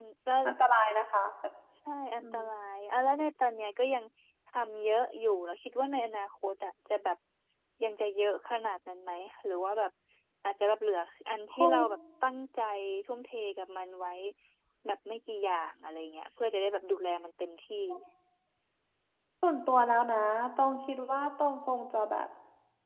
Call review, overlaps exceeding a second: none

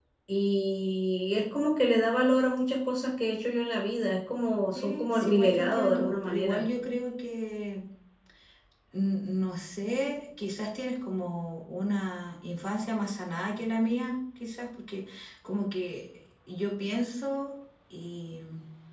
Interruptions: present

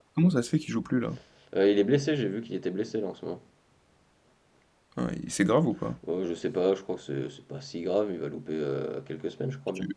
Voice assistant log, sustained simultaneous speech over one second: none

